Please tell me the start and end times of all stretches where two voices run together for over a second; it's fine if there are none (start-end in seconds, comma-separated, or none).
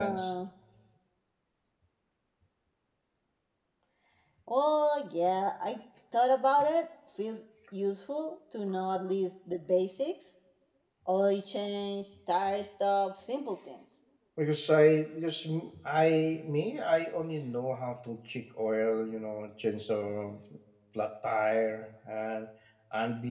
none